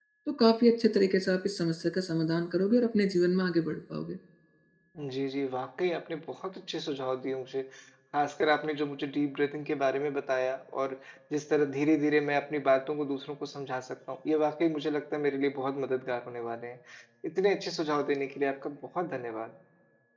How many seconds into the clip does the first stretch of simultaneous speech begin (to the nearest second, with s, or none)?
none